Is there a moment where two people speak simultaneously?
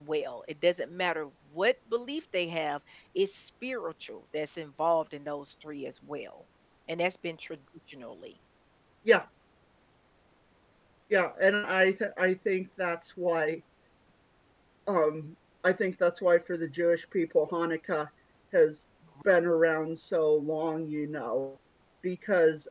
No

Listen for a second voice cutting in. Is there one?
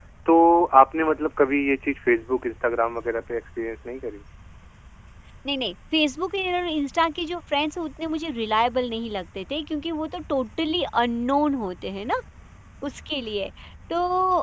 No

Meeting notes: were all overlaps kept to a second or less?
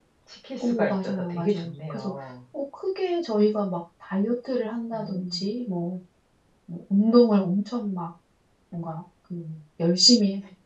No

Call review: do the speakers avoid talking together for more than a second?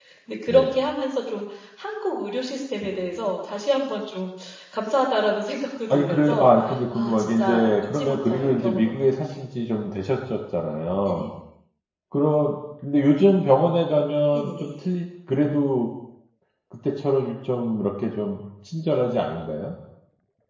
No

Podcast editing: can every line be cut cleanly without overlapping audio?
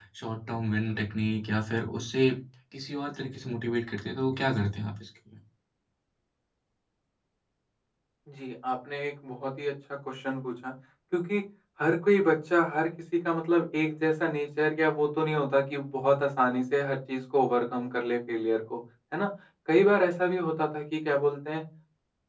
Yes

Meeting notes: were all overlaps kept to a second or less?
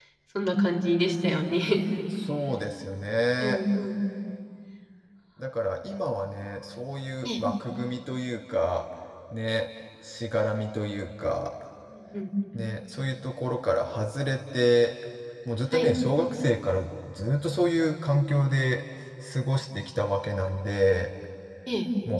Yes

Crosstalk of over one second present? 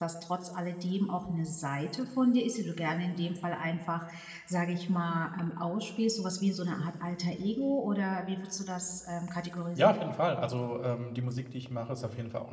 No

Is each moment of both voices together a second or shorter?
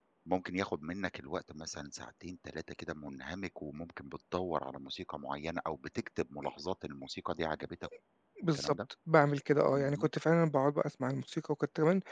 Yes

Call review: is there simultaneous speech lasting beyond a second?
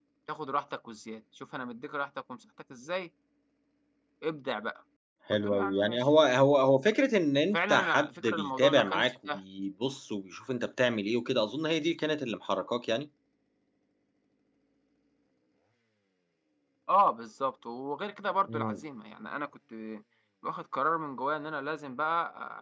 Yes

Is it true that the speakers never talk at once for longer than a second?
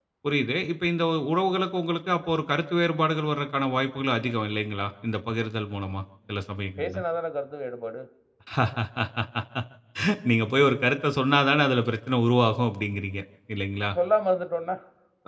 Yes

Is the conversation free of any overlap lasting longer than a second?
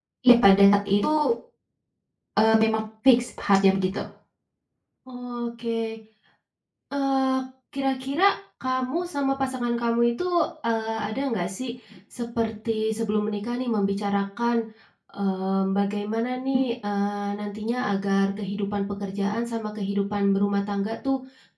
Yes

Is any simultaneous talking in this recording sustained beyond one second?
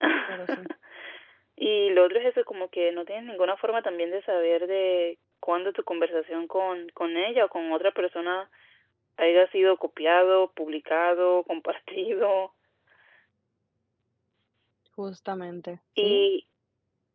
No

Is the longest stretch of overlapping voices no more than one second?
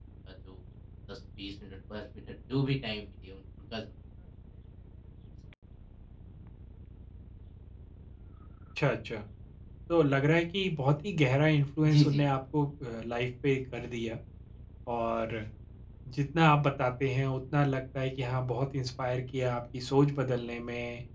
Yes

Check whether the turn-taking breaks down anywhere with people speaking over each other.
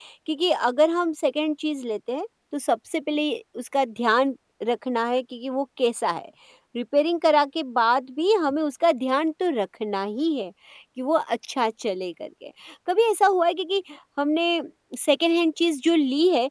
No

